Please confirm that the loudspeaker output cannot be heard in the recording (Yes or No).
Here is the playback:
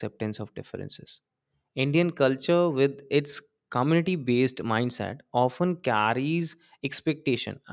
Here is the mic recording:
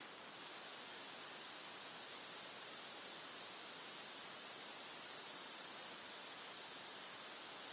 Yes